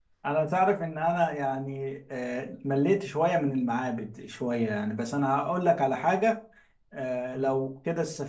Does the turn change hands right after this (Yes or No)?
No